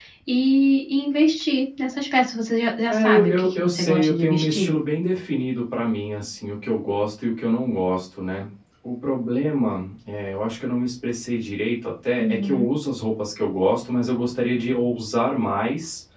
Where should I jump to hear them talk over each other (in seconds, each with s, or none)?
2.9 s